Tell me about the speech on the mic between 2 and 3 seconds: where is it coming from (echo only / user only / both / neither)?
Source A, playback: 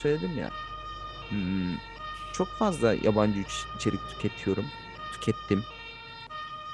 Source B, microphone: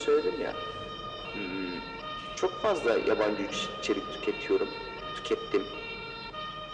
echo only